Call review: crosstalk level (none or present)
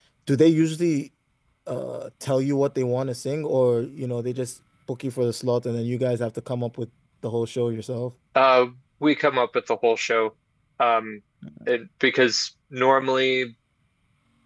none